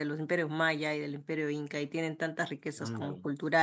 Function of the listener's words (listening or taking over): listening